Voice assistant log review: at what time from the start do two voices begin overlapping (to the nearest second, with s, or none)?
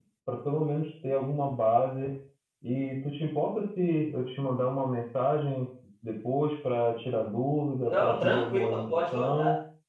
8 s